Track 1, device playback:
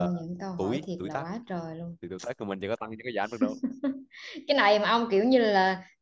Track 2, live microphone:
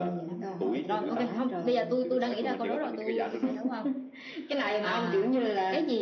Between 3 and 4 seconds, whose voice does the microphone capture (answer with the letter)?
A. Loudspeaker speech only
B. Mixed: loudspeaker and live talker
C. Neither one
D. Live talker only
B